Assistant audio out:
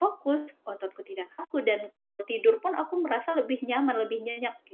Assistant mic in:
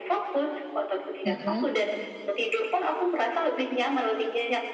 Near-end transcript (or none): Mhm.